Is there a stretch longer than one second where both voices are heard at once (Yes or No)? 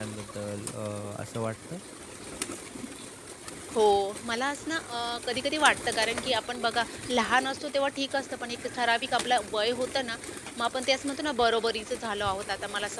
No